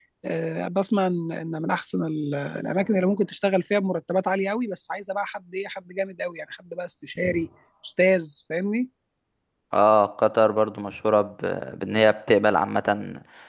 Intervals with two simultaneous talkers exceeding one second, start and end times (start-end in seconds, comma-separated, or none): none